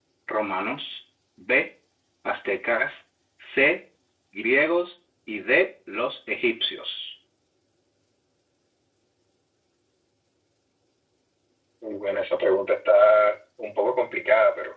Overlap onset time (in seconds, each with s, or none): none